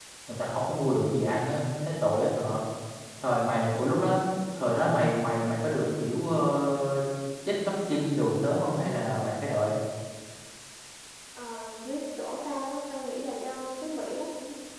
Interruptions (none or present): none